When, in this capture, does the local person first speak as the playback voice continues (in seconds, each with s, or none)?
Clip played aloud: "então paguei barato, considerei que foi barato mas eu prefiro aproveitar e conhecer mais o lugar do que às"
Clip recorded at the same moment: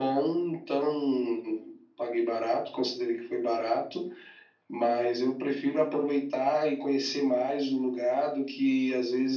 none